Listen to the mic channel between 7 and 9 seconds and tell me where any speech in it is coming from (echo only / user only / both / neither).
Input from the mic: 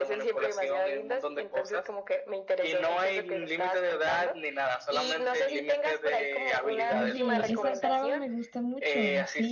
both